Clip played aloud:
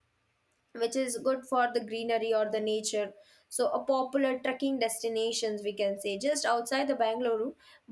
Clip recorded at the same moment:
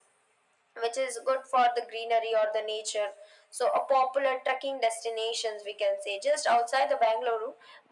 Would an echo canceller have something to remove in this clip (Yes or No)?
Yes